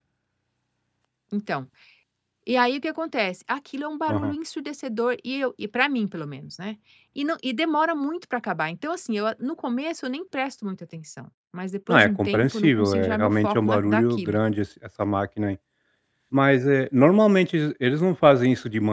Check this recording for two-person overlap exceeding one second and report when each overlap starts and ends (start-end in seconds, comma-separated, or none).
11.9-14.4